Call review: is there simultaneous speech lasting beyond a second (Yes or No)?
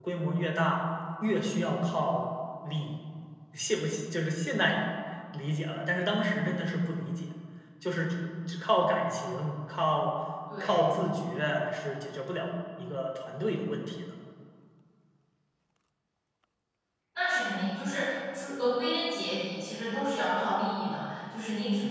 No